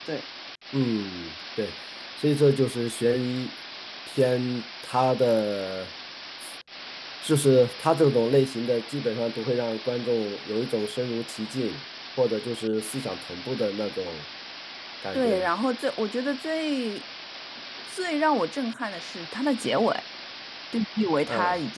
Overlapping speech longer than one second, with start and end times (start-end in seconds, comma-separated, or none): none